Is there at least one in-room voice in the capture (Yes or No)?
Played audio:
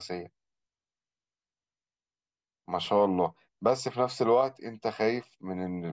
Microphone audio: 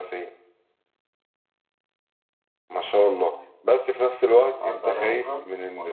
Yes